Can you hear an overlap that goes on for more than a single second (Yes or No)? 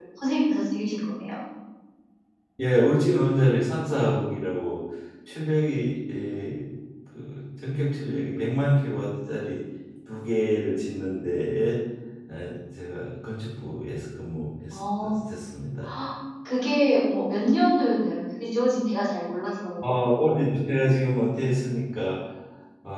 No